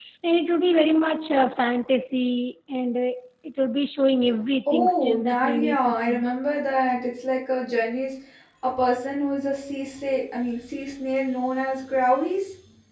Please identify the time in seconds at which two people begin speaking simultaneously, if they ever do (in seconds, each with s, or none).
4.7 s